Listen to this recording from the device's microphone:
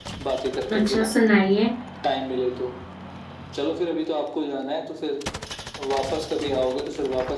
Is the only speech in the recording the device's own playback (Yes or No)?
No